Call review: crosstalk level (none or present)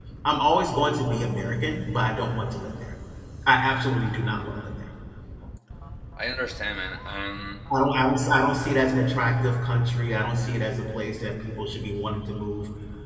none